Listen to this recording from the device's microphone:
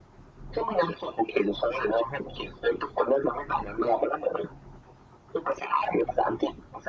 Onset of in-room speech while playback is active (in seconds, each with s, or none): none